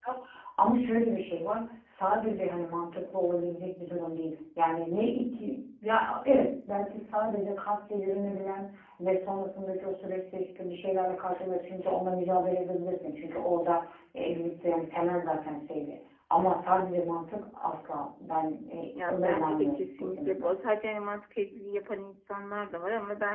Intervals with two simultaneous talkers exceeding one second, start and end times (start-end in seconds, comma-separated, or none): 19.1-20.5